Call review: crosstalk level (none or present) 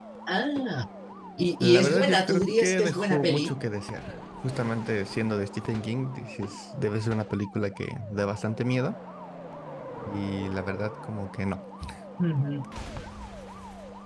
present